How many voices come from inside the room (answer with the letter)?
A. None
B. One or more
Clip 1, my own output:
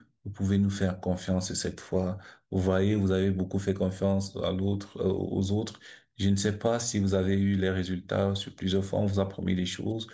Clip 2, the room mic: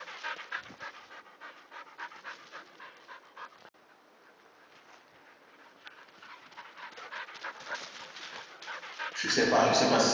B